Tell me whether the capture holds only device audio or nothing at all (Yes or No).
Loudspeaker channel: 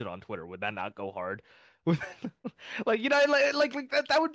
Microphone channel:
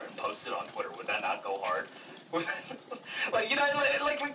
Yes